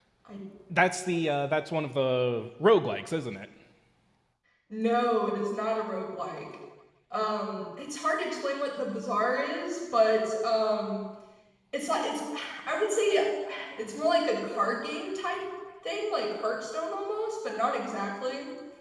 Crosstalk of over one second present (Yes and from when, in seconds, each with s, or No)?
No